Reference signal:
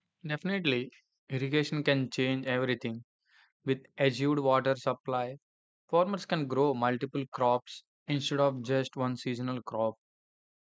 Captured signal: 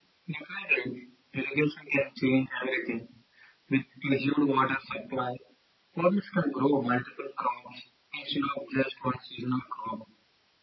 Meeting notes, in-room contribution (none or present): none